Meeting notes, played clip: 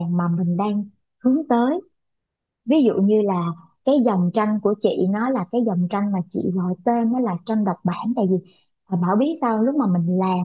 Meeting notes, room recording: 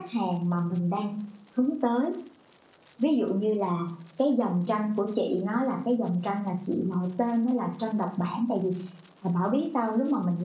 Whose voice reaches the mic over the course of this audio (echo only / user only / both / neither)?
echo only